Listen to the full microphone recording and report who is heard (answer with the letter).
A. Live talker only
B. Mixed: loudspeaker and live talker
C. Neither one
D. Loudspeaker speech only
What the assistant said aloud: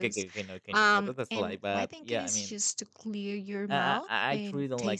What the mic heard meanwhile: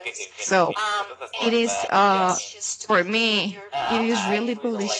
B